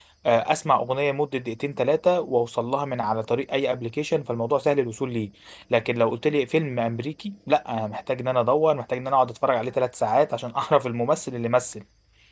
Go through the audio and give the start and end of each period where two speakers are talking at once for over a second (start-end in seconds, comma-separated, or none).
none